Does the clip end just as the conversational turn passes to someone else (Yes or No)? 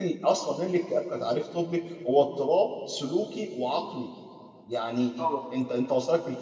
No